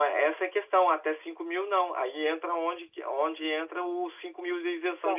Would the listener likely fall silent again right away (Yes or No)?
No